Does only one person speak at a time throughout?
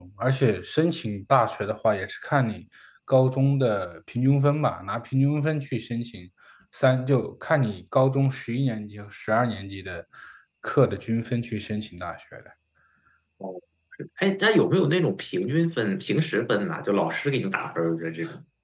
Yes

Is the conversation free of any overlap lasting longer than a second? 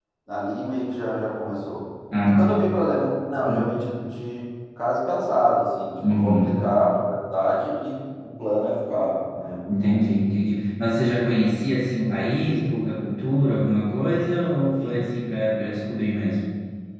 Yes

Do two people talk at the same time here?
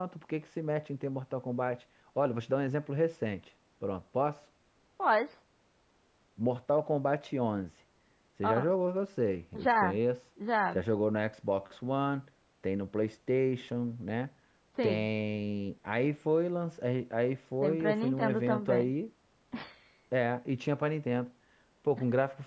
Yes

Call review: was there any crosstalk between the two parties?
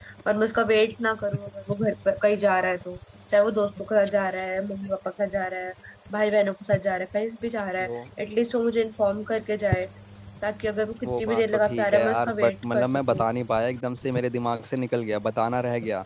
Yes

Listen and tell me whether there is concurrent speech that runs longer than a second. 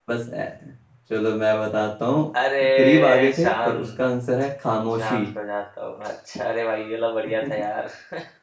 Yes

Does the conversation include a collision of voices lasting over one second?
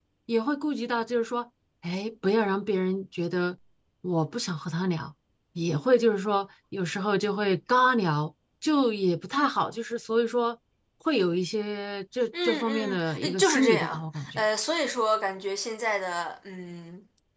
Yes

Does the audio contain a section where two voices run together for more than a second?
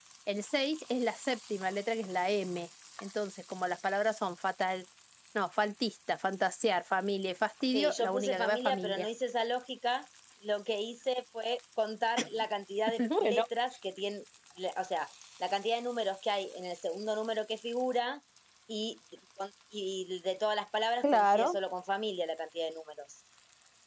Yes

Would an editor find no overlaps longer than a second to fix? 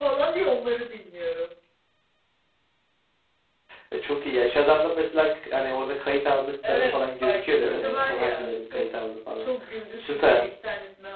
No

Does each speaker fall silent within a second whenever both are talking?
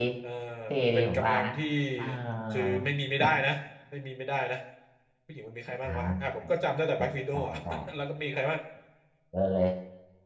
Yes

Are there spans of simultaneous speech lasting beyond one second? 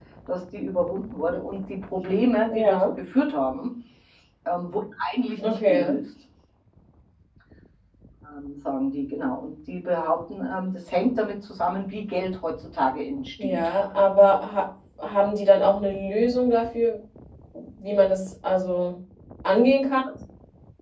No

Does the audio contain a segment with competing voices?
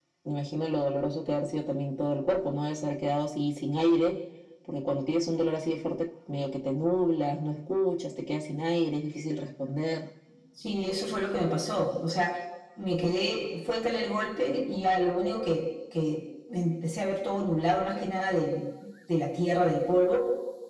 No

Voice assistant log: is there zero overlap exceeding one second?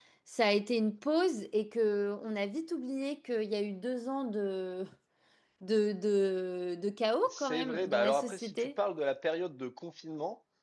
No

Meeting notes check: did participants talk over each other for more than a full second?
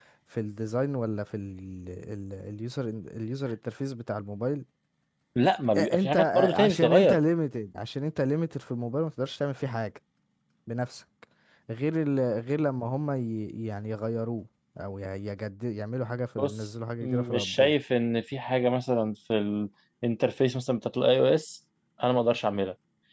Yes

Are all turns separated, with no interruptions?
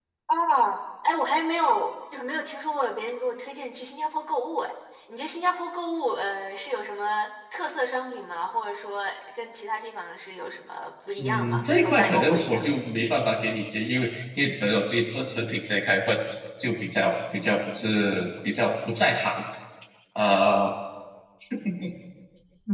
No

